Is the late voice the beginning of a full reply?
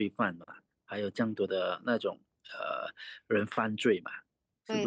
Yes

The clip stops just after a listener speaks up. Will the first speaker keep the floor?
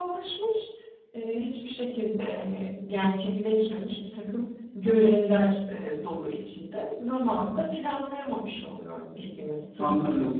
No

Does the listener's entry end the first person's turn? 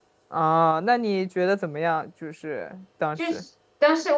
Yes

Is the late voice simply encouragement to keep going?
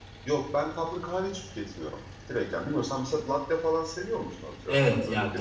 No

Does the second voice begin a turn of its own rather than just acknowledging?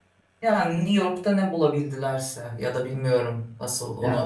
No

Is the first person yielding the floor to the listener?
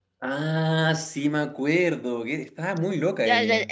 Yes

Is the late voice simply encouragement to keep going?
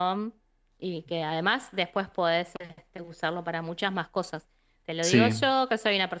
Yes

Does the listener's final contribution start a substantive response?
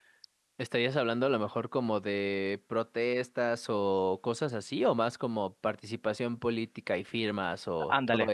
Yes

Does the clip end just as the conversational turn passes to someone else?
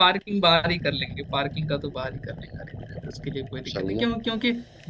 No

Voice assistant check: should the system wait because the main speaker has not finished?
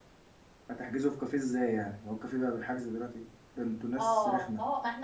No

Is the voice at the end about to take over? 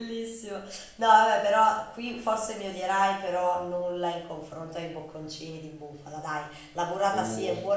No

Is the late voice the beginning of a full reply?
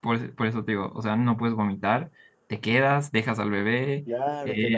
Yes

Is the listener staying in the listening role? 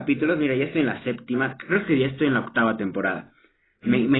Yes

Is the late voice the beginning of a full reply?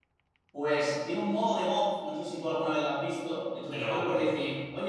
No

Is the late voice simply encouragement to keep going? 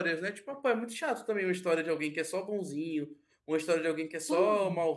Yes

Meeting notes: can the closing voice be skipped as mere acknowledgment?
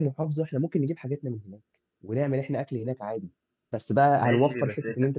No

